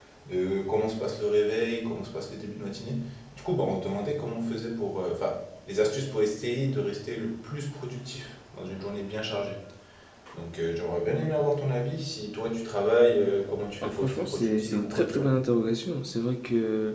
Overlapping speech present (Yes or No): Yes